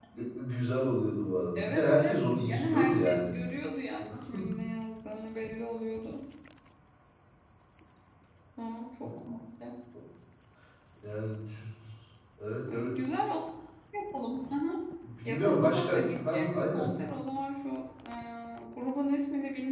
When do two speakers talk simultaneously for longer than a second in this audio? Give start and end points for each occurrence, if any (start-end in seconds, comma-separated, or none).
1.6-3.3, 15.2-16.9